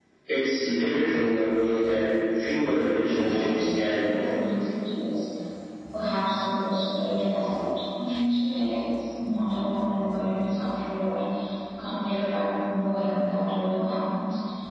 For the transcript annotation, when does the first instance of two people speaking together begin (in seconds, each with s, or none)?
3.1 s